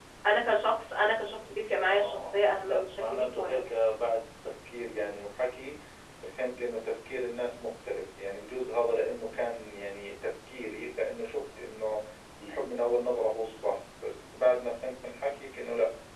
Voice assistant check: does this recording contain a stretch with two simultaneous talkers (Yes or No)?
Yes